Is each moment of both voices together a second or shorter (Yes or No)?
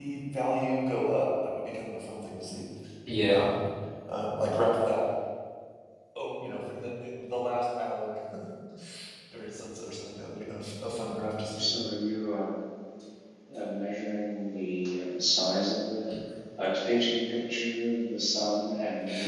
Yes